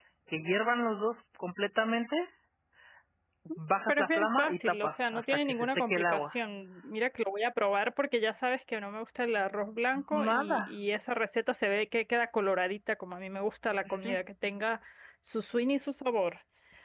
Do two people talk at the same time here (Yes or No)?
Yes